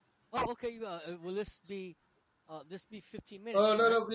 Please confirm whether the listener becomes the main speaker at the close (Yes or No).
Yes